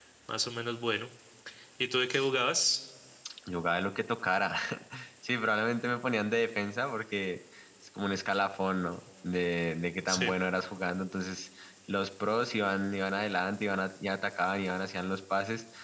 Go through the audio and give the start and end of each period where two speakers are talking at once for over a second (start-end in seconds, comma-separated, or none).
none